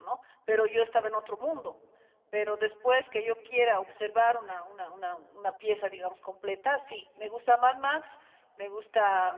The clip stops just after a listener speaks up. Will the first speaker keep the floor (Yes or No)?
Yes